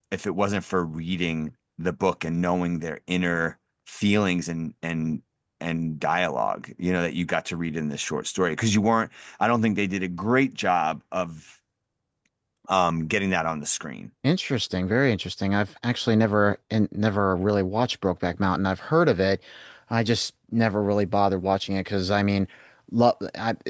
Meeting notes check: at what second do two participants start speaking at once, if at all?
none

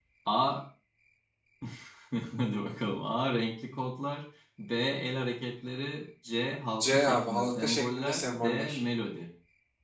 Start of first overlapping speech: 7 s

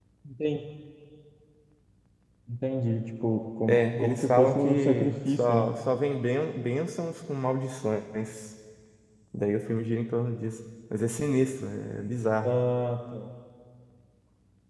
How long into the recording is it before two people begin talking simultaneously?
4 s

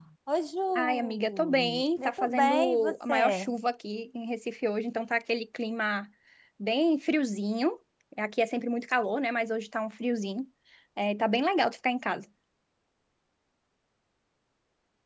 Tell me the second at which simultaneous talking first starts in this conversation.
1 s

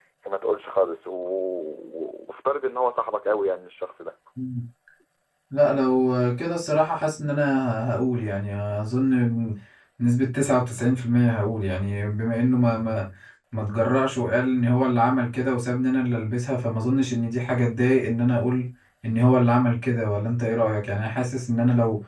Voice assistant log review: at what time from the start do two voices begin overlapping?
none

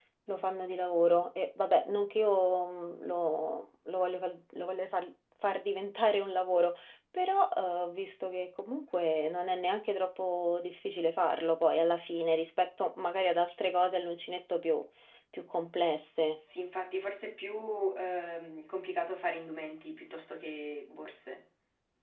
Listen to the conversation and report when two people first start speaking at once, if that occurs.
none

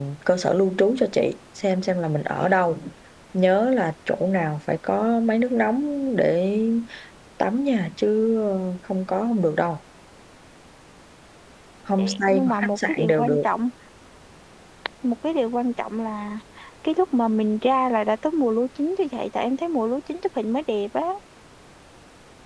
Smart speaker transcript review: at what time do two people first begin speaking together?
12 s

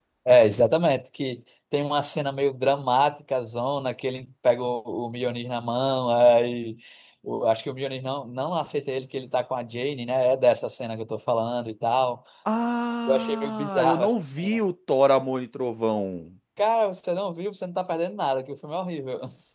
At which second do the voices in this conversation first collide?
13 s

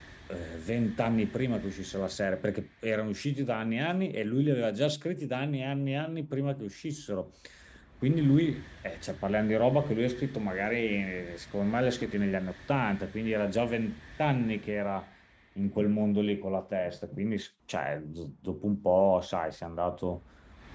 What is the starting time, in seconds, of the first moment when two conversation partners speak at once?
none

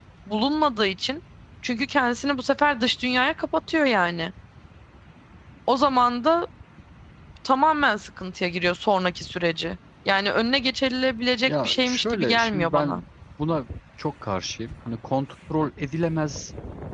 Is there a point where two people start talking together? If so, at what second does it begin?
11 s

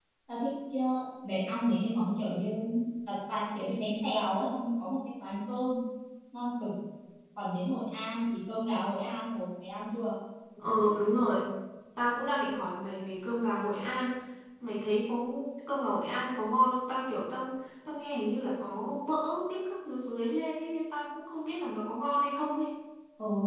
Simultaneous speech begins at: none

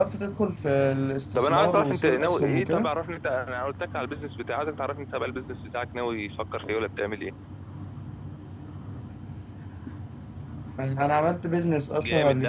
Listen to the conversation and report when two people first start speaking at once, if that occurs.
1 s

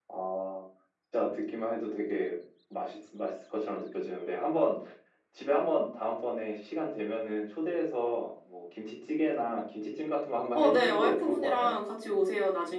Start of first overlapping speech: 11 s

